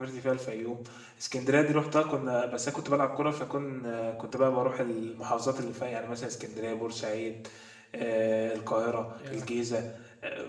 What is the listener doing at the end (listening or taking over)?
listening